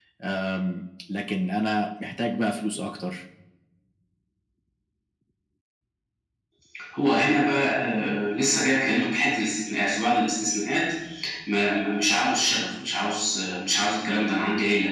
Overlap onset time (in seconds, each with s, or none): none